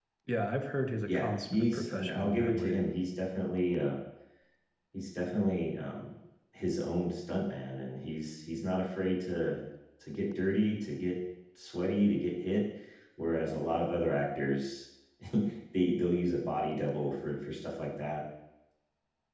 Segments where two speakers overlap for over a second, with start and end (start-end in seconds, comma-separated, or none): 1.1-2.8